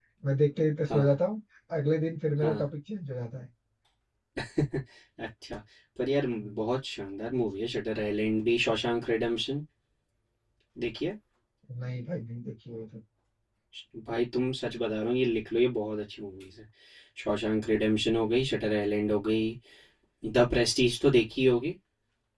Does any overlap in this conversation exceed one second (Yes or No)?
No